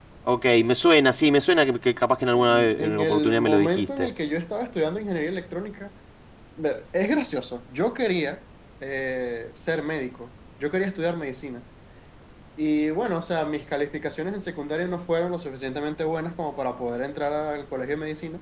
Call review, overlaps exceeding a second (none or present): present